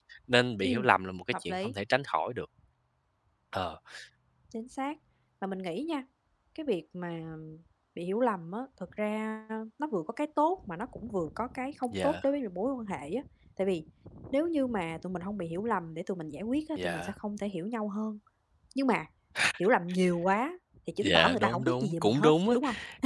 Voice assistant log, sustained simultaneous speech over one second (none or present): present